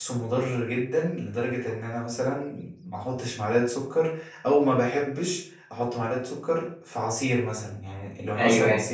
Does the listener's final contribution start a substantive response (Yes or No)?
No